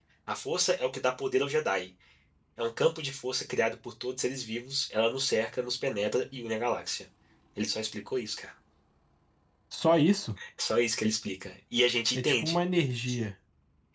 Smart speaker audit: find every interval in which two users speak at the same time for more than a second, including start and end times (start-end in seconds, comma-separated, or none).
none